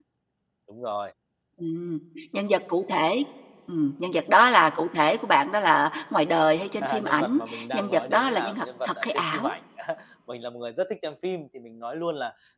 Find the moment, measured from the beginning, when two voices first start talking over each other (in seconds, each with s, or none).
6.8 s